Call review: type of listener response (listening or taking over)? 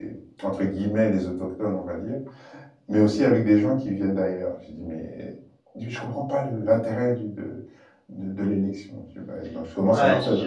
taking over